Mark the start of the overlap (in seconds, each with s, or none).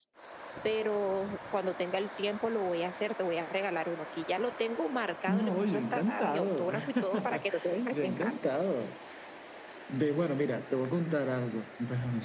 5.3 s